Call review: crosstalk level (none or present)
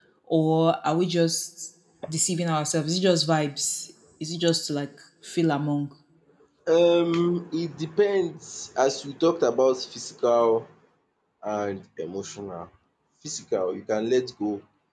none